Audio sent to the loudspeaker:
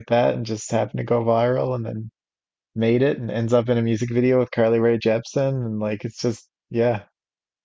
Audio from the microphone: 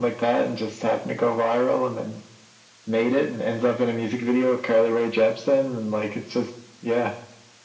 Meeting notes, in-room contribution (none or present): none